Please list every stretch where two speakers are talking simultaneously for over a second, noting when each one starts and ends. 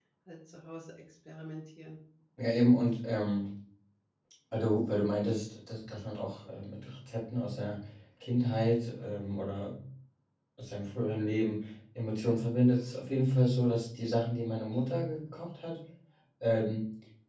none

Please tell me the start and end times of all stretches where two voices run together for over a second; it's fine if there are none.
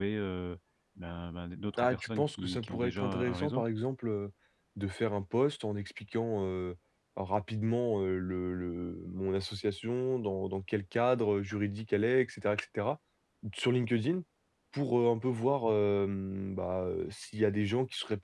1.8-3.6

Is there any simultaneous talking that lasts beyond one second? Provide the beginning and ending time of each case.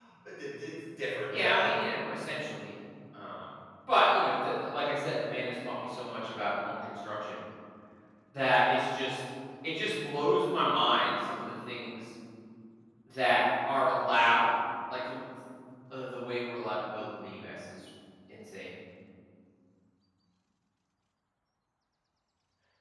none

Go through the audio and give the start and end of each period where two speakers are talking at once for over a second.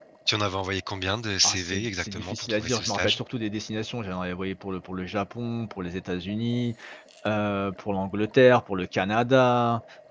1.4-3.2

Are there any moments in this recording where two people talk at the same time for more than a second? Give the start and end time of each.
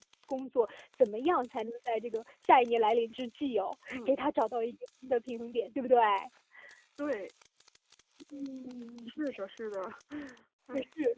none

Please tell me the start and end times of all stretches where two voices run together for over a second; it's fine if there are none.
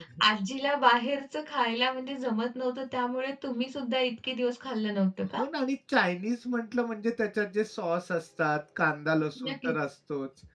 none

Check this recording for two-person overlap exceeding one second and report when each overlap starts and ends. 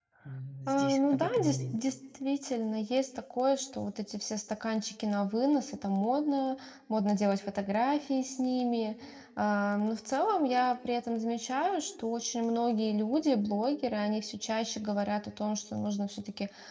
0.7-1.9

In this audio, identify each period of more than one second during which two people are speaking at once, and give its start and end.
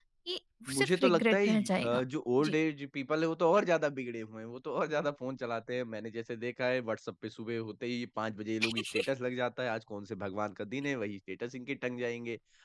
0.8-2.0

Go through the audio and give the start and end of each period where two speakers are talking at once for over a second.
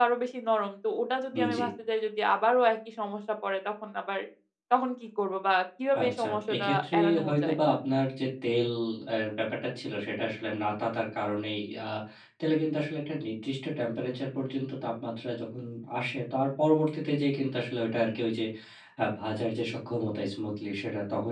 6.0-7.6

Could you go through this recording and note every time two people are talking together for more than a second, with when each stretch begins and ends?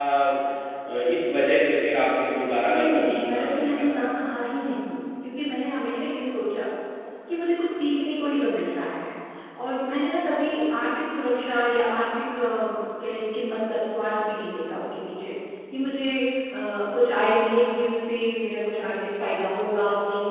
2.6-4.0

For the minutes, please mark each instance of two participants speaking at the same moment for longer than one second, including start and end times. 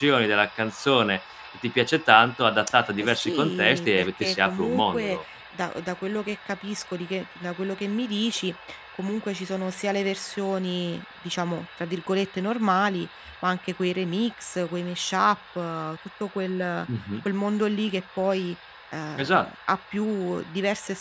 3.0-5.2

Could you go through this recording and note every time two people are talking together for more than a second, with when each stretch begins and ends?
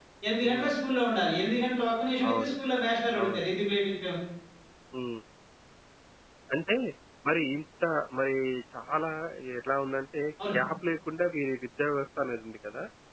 none

